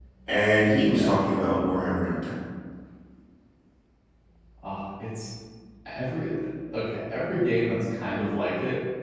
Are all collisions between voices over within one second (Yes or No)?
Yes